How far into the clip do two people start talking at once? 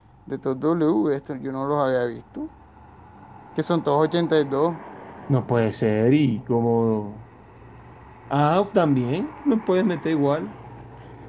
none

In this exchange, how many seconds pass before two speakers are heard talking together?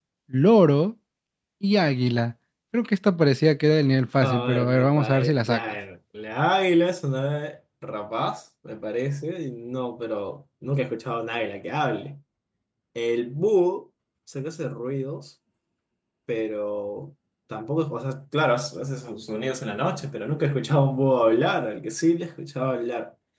4.2 s

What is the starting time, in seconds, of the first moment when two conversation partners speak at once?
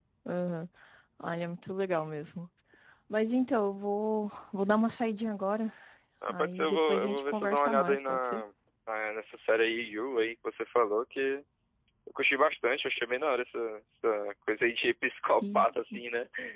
6.3 s

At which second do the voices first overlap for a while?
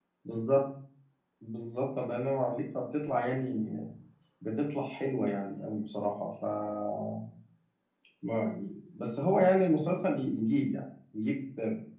none

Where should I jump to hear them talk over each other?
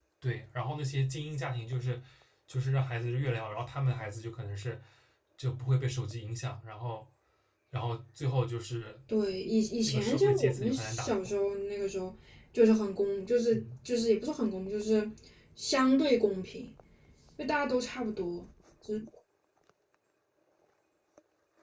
9.8 s

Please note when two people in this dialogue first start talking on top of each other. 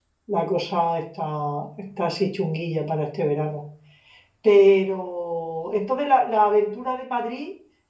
none

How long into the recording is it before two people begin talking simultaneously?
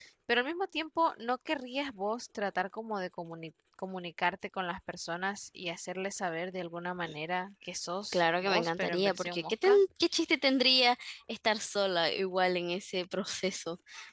8.1 s

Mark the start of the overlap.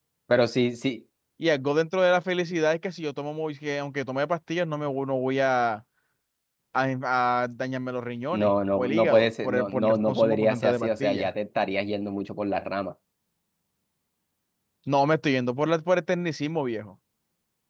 8.3 s

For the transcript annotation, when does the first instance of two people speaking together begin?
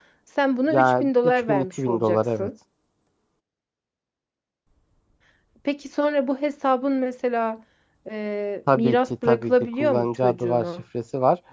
0.7 s

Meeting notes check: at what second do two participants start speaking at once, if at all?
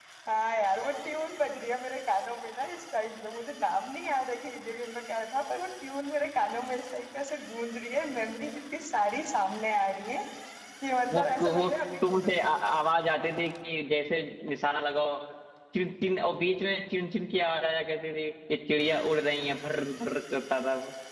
11.1 s

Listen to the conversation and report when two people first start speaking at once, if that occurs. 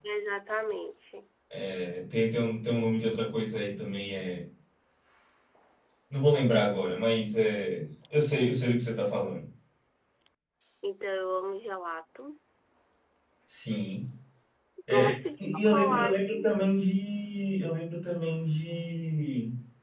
14.9 s

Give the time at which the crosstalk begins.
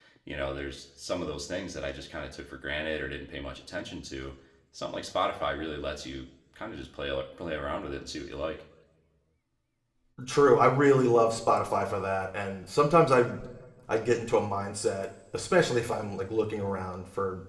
none

